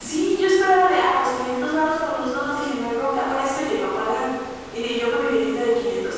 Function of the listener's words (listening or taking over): listening